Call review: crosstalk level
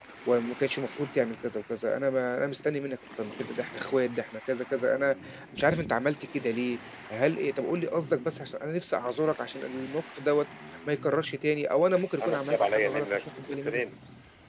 present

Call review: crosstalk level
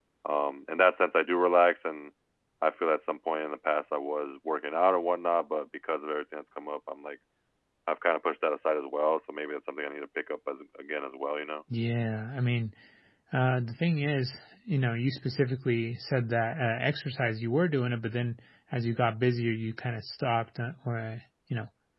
none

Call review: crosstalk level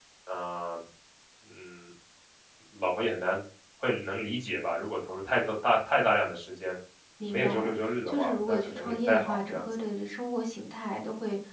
present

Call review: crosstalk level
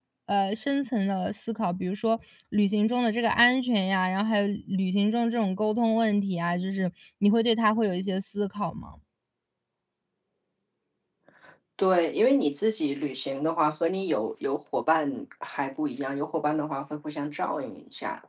none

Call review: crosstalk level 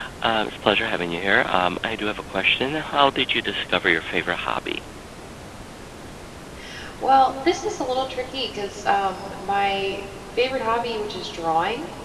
none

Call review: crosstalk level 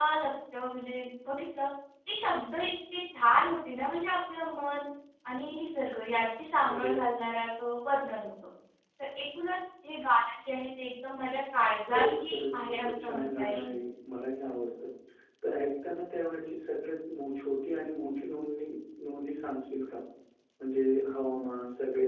present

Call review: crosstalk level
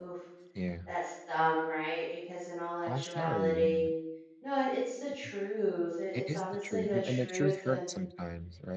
present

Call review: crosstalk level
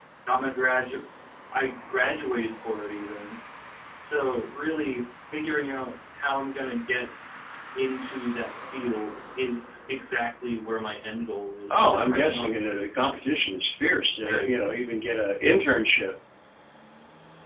present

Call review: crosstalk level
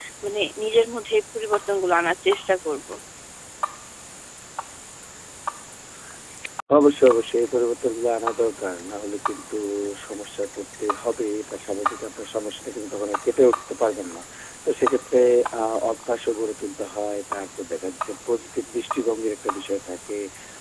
none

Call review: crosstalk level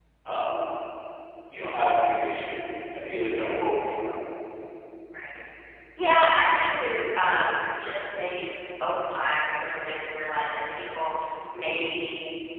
none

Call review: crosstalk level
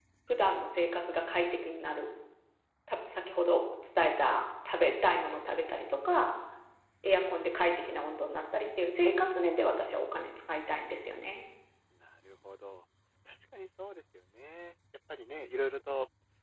none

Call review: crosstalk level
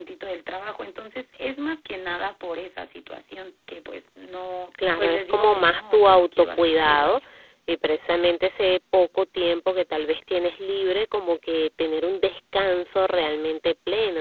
present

